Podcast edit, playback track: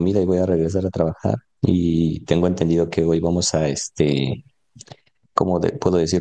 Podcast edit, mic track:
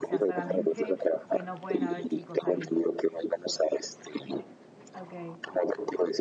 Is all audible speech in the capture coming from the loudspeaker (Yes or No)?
No